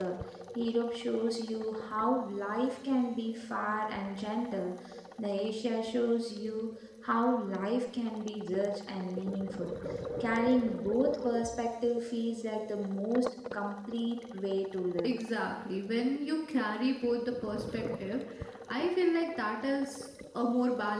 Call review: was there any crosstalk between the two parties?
No

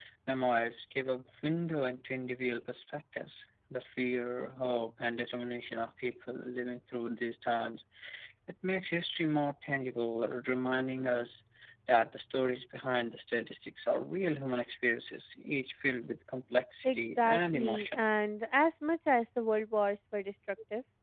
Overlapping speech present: Yes, from 16.8 s

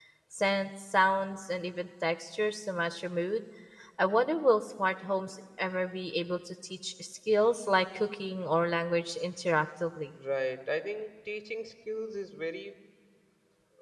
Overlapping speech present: No

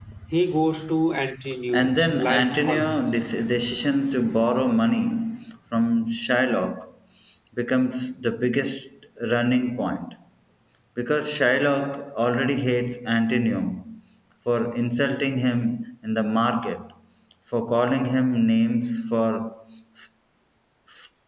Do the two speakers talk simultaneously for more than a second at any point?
Yes, from 1.7 s

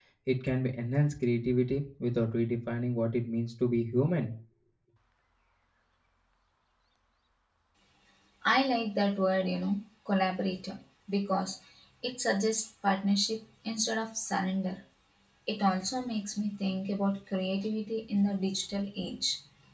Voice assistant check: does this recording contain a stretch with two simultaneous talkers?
No

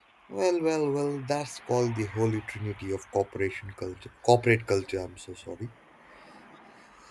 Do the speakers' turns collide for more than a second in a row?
No

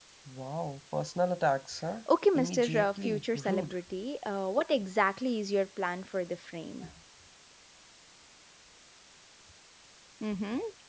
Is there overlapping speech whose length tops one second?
Yes, from 2.4 s

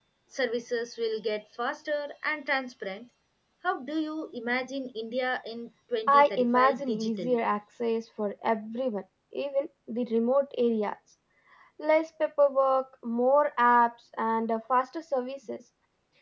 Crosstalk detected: Yes, from 6.1 s

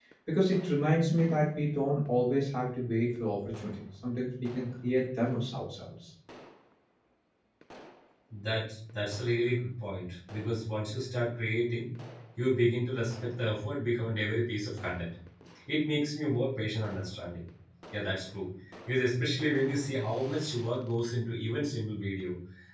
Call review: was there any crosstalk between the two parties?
No

